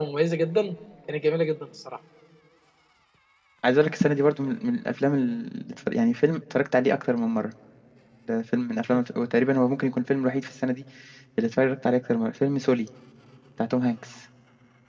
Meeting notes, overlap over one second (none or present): none